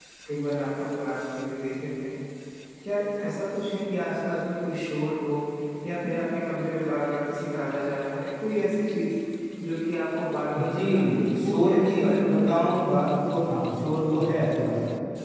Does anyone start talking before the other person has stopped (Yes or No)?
Yes